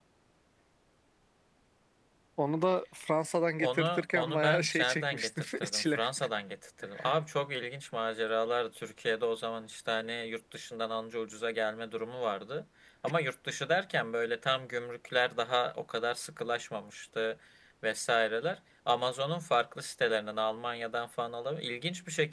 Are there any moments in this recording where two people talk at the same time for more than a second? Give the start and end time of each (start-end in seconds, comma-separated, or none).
3.6-6.0